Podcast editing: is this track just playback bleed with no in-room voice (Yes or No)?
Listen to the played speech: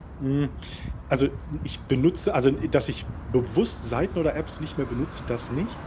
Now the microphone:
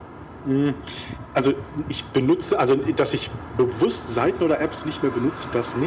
Yes